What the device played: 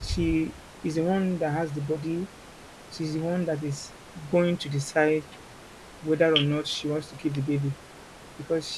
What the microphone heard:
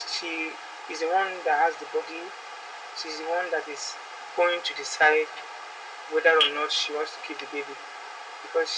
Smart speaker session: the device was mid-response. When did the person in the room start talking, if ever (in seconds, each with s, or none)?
none